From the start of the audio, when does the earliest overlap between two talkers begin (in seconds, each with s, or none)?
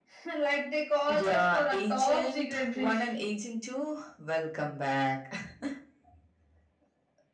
1.1 s